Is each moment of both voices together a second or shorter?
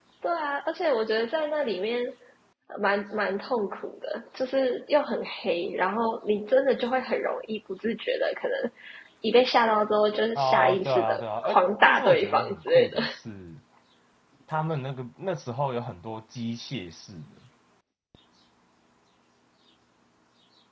No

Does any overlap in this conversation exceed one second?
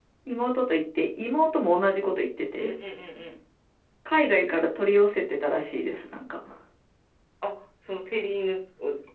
No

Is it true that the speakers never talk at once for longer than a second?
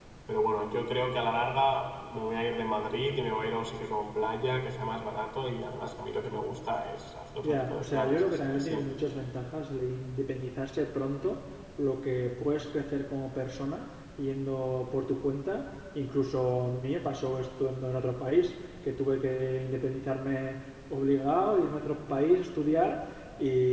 No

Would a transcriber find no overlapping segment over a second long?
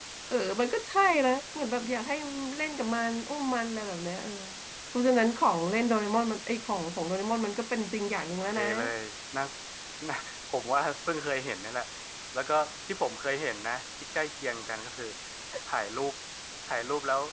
Yes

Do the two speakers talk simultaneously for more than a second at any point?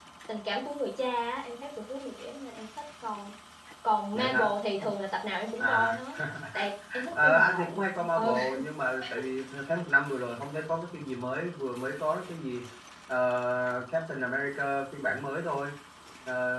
Yes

